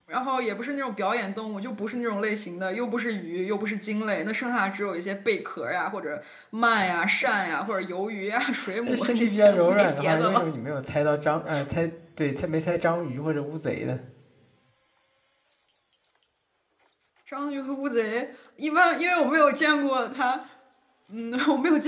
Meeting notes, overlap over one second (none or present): present